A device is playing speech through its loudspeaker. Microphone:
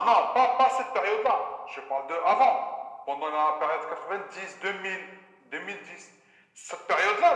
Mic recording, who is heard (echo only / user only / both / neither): echo only